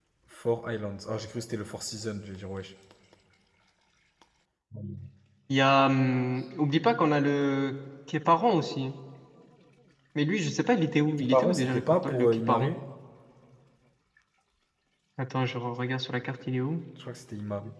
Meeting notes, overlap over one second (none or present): present